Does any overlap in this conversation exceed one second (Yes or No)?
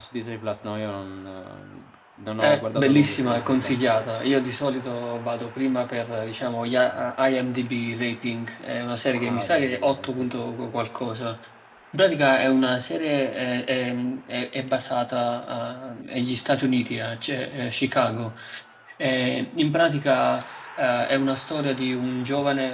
Yes